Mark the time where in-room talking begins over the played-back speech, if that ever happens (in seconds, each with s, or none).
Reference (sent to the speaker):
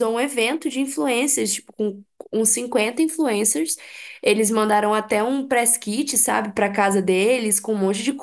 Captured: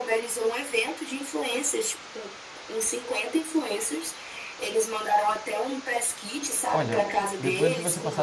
6.7 s